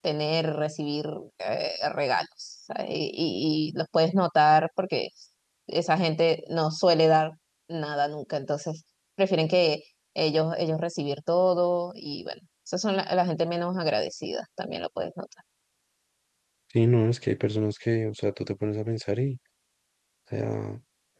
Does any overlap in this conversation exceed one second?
No

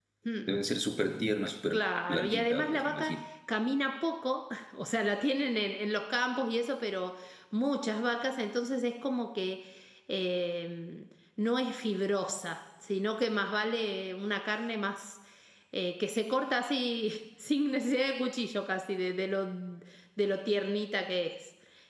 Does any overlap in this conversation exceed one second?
Yes, from 1.7 s

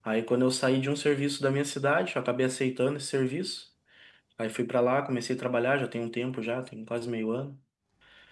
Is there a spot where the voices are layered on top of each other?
No

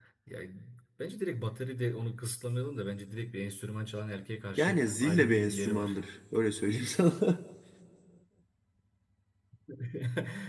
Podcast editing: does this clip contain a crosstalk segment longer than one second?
Yes, from 4.6 s

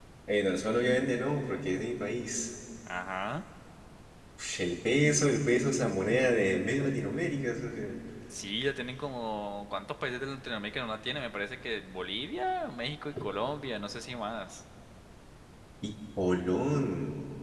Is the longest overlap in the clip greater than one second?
No

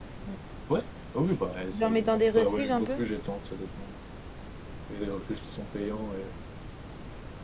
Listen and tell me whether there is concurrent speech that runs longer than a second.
Yes, from 1.7 s

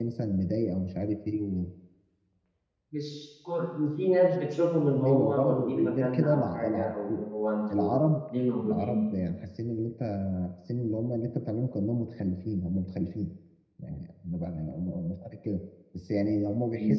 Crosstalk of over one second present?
Yes, from 5.0 s

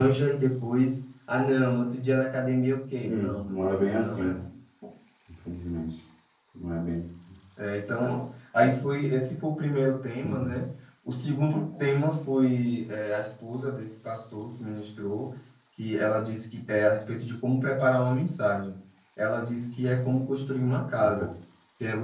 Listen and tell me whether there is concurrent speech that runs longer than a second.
Yes, from 3.0 s

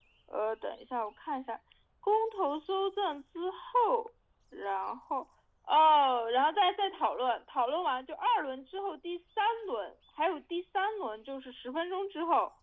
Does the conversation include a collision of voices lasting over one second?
No

